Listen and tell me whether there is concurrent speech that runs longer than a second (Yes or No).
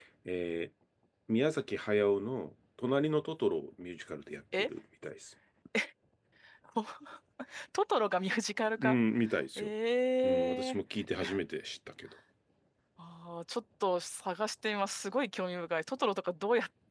No